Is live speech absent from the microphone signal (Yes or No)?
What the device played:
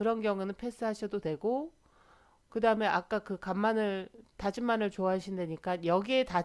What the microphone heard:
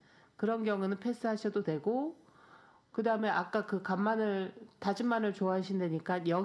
Yes